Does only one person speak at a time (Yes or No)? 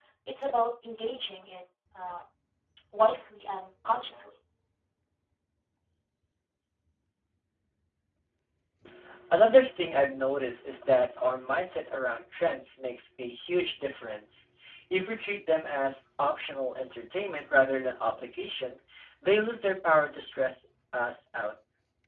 Yes